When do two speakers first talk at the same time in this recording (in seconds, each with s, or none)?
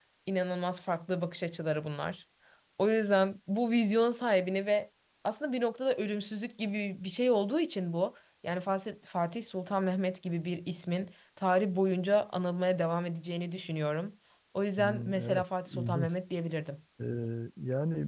14.8 s